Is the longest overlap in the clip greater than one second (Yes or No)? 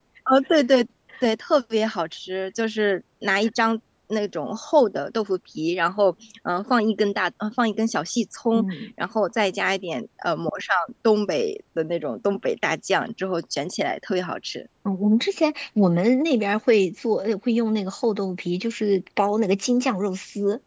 No